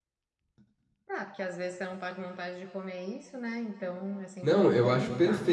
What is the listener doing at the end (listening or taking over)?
taking over